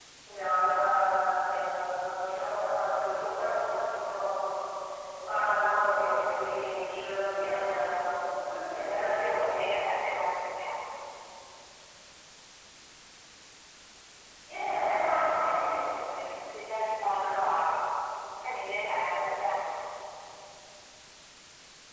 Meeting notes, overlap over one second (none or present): present